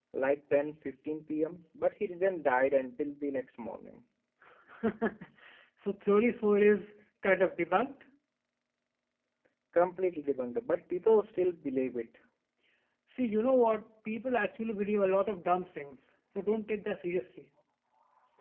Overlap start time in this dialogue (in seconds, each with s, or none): none